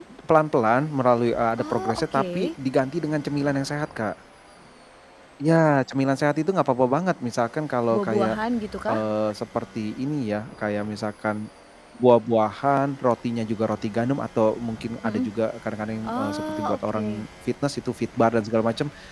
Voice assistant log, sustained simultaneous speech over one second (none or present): present